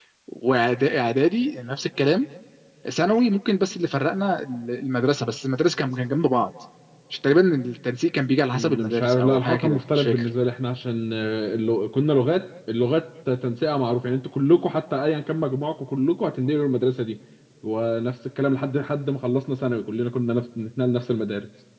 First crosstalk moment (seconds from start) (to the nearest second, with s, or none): 9 s